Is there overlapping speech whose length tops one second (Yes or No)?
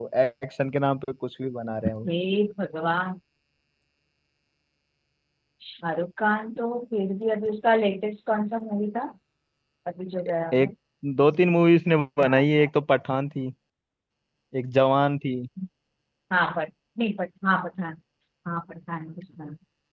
No